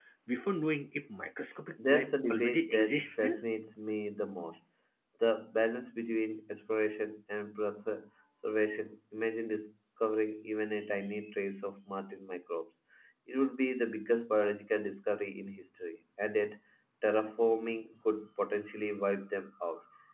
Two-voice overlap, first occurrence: 1.8 s

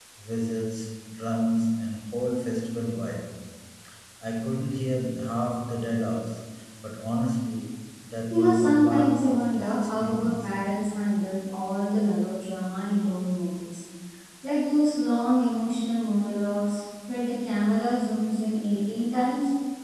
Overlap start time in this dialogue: 8.3 s

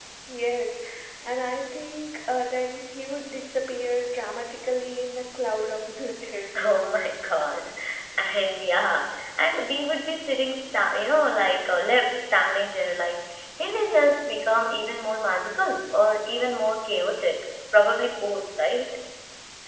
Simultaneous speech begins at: none

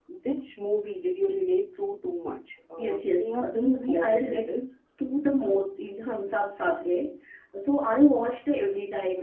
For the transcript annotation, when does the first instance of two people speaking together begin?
2.8 s

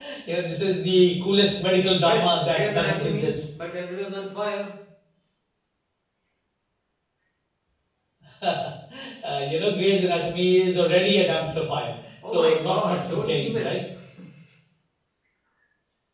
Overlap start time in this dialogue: 2.0 s

